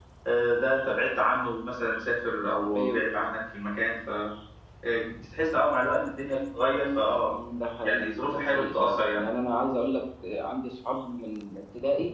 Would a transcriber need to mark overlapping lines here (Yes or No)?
Yes